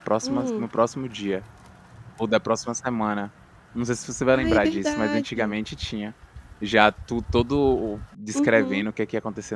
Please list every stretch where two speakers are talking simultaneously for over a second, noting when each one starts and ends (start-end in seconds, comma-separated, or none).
4.3-5.5